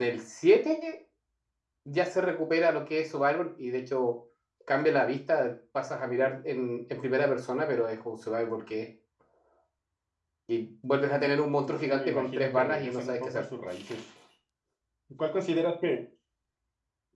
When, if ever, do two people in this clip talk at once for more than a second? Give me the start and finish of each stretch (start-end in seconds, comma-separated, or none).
11.7-13.4